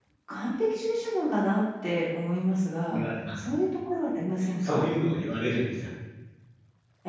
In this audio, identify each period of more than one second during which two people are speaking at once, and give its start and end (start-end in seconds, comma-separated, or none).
none